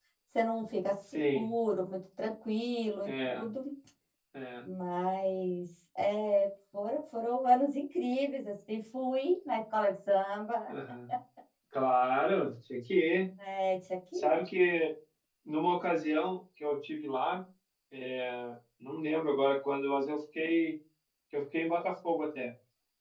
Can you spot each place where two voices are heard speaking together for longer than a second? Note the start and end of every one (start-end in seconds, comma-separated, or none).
none